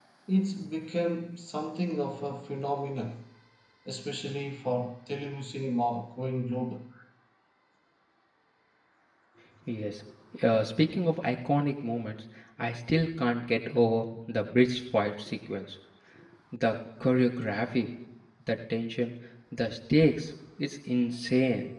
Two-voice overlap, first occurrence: none

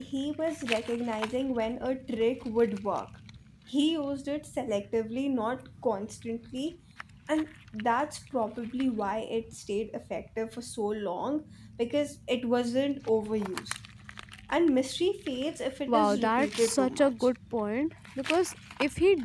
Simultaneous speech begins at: 15.9 s

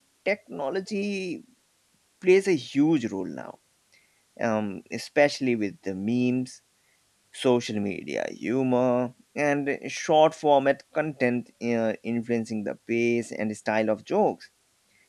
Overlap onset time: none

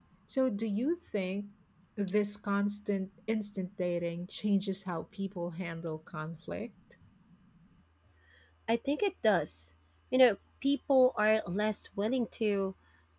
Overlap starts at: none

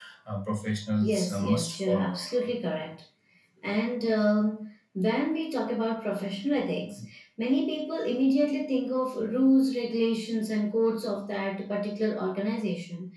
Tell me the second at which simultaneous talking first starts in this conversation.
1.0 s

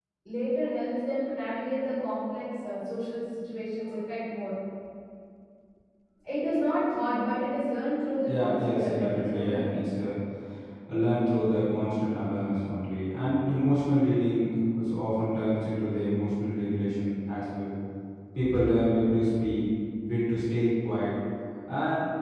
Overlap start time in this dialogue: 8.3 s

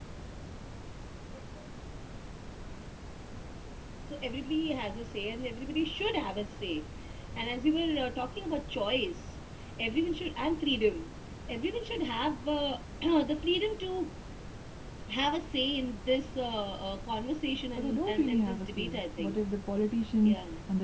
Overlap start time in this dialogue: 17.8 s

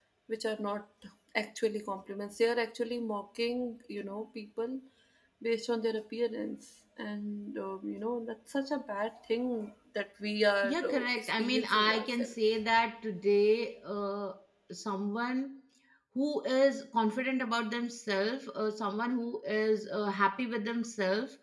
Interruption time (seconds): 10.6 s

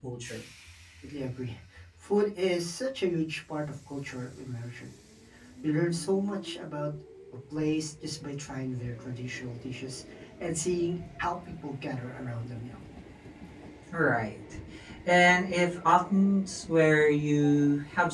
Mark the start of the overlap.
none

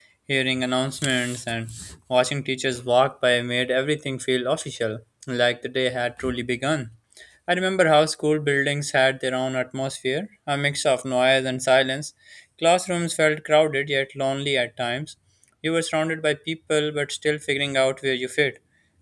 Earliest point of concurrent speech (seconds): none

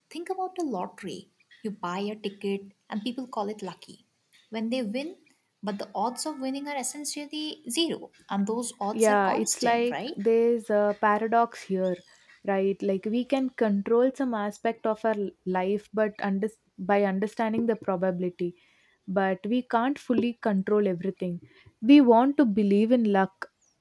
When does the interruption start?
8.9 s

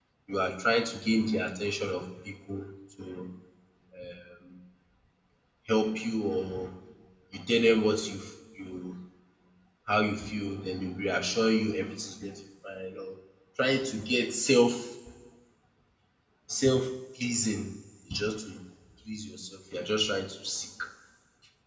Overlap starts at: none

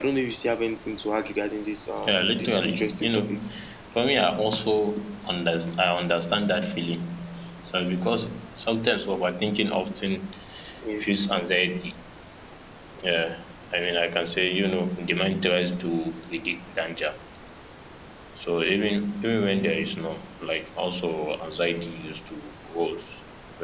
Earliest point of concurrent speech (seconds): 2.0 s

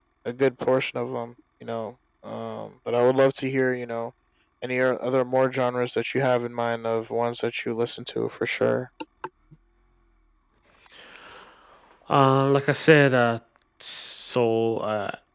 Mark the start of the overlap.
none

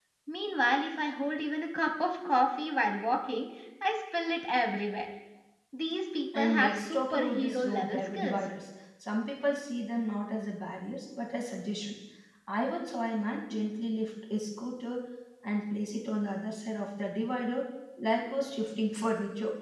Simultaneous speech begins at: 6.3 s

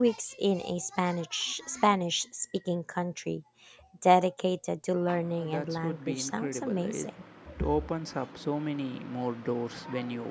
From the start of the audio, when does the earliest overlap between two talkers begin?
5.4 s

